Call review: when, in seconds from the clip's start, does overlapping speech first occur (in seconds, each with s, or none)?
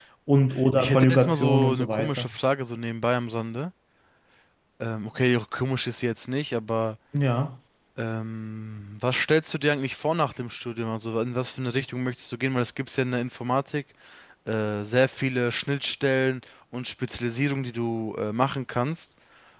0.8 s